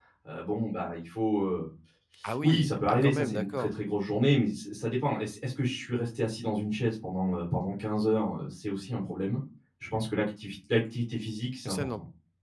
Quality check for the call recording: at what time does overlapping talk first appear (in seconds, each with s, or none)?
2.4 s